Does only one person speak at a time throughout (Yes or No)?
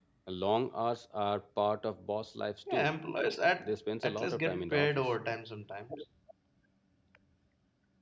No